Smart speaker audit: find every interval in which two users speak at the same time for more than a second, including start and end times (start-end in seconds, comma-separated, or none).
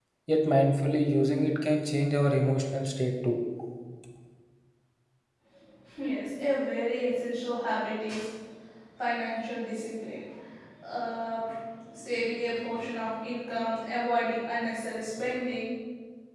none